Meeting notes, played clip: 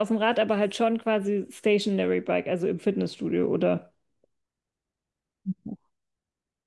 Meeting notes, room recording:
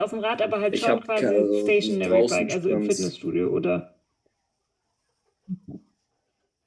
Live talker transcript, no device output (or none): Ich habe also, so draußen Sprints,